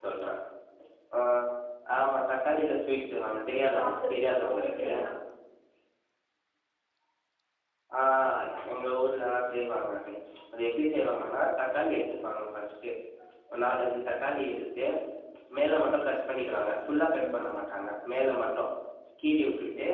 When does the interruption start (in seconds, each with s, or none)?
3.5 s